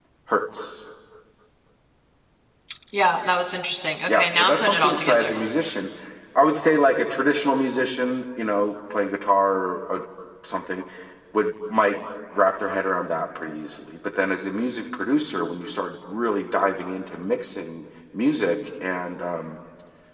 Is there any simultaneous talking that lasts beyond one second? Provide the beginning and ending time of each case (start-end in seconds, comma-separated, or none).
4.1-5.3